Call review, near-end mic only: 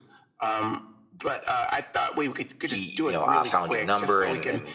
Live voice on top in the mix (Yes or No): Yes